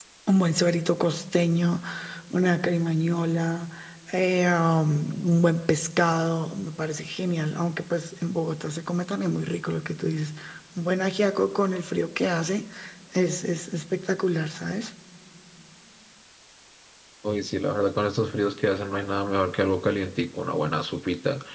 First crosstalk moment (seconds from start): none

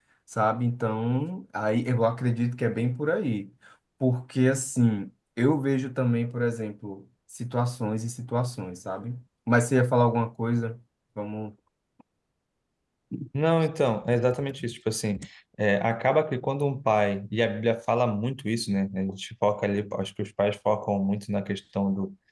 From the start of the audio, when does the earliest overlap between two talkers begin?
none

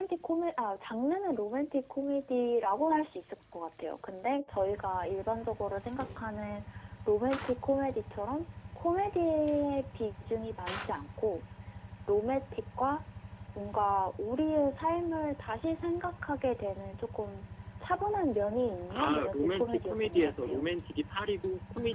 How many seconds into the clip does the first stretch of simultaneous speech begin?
18.9 s

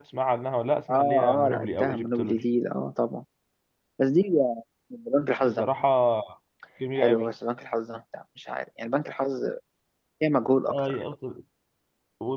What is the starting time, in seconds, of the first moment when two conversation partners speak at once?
0.9 s

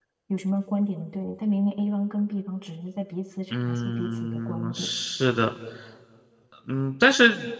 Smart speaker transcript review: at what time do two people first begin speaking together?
3.5 s

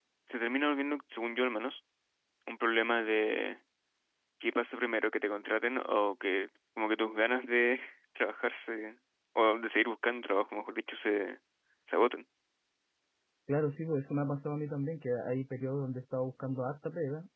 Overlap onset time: none

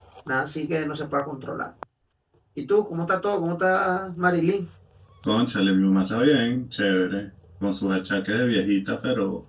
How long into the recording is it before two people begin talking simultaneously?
none

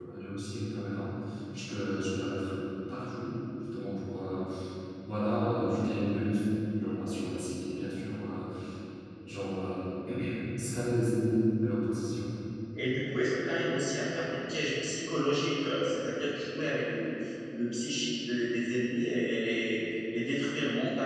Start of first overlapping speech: none

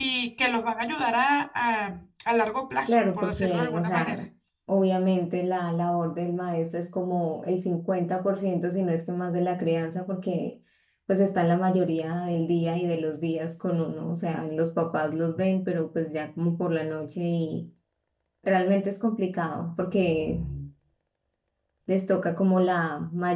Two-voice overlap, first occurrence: 2.9 s

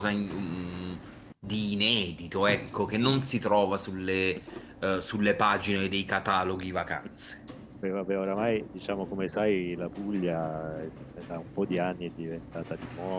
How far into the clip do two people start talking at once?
none

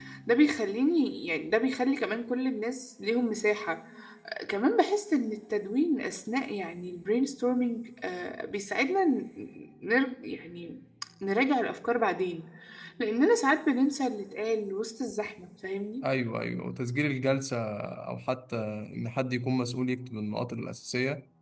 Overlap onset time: none

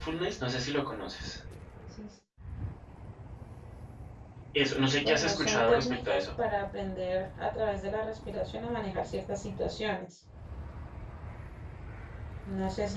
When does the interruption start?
5.0 s

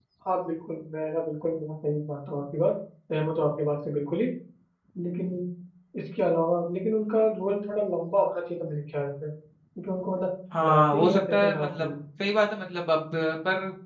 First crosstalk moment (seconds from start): 10.5 s

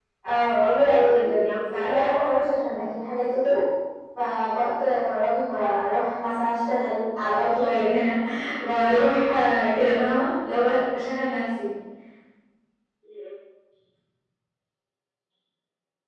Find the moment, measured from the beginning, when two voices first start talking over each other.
0.6 s

